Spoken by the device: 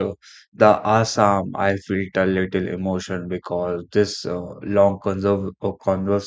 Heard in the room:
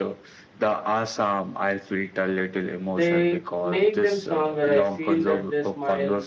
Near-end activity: present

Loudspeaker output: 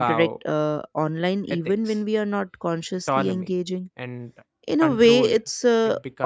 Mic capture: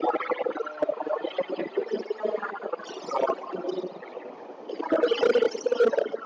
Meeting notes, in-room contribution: none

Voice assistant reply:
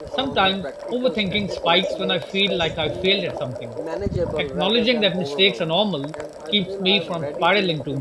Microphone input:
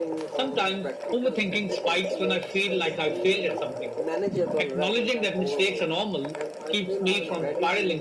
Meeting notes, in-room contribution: none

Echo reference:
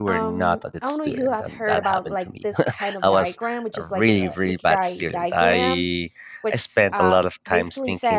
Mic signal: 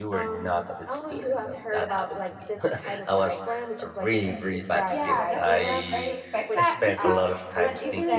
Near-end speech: present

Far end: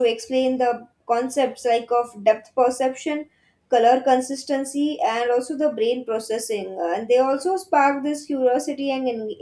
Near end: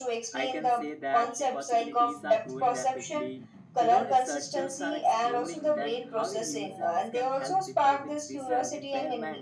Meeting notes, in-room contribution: present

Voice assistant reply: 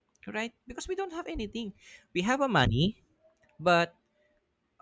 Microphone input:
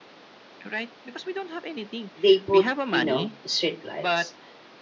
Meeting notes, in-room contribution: present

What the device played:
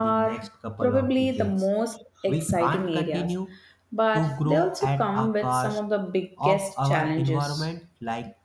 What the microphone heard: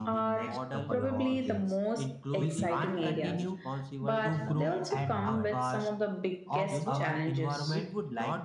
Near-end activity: present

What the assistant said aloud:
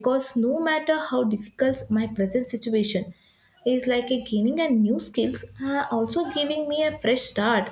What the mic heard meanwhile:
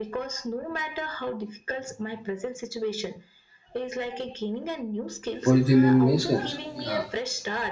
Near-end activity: present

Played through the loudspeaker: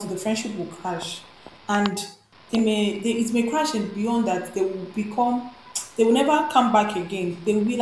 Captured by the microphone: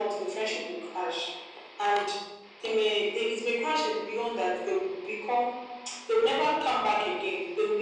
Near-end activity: none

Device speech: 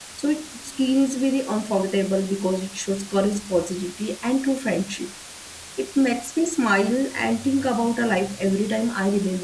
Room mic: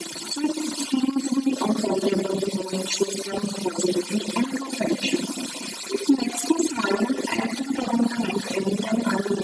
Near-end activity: none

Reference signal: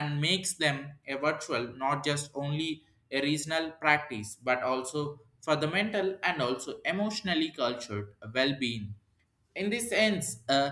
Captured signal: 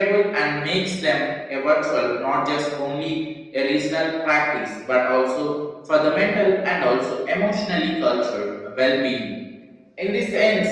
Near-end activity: none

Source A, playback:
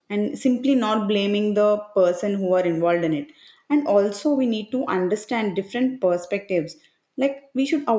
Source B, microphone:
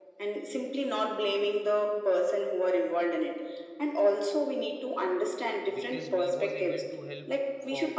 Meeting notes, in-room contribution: present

